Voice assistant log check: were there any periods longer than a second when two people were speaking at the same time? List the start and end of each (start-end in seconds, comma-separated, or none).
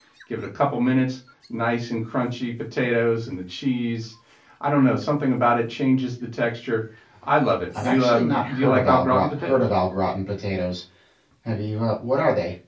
7.8-9.6